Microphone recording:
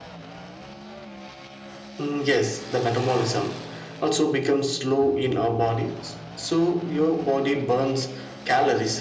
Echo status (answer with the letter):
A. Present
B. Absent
A